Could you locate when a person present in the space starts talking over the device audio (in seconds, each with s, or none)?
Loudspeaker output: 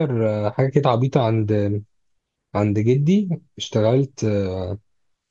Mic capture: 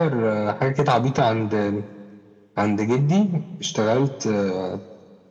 none